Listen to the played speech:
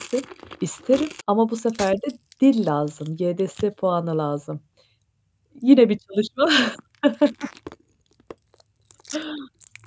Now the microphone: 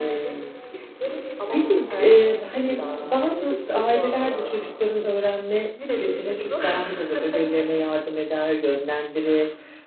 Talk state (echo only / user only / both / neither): both